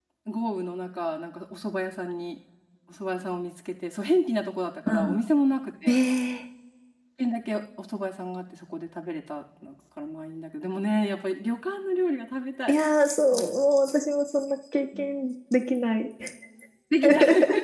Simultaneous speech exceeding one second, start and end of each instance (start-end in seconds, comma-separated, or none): none